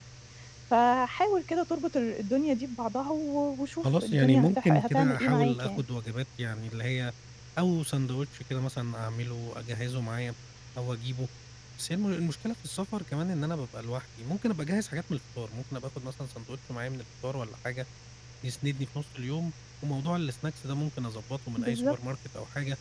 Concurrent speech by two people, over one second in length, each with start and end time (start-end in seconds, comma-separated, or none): 3.8-5.8